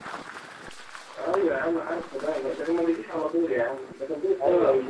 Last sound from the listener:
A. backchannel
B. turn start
B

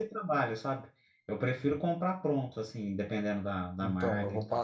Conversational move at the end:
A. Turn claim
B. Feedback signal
A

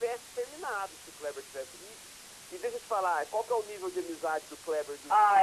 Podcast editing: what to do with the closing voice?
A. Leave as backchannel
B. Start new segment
B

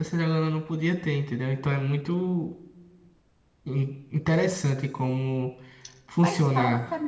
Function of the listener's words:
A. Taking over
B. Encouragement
A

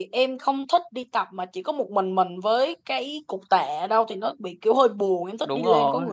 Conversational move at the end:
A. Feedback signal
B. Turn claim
B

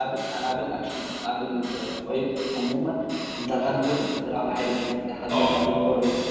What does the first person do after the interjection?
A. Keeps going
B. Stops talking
A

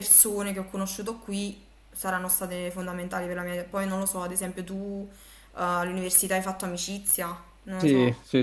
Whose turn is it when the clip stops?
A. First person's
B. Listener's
B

